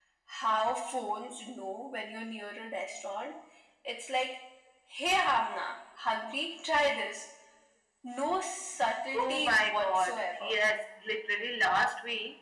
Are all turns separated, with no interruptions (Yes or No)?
No